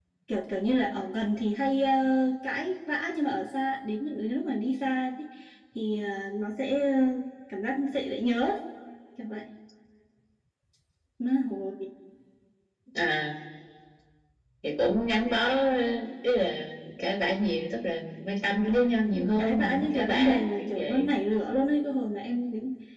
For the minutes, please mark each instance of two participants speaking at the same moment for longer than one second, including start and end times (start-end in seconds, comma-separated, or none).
18.7-21.1